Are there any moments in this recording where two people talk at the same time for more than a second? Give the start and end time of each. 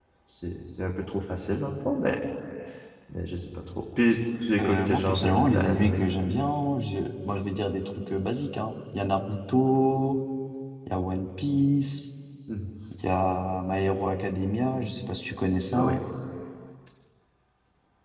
4.6-6.0

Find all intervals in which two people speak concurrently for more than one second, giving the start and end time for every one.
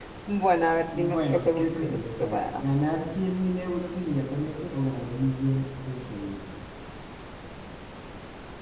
0.8-2.6

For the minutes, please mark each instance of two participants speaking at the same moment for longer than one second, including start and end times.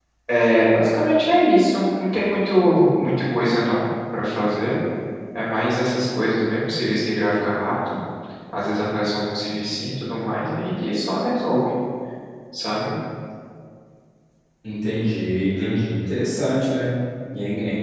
none

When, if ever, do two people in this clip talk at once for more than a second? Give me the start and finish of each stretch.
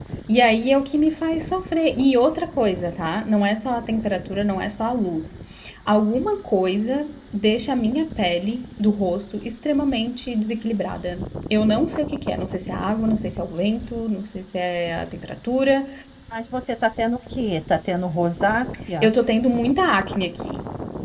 none

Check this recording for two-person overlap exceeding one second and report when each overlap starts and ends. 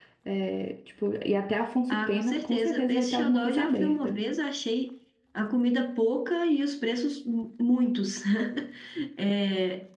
1.9-4.2

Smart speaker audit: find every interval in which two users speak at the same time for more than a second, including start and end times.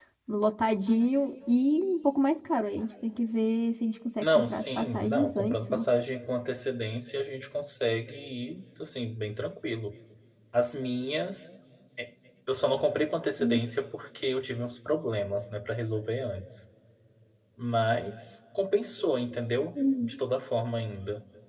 4.2-5.8

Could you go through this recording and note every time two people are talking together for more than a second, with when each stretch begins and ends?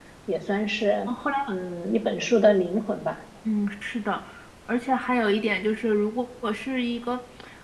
none

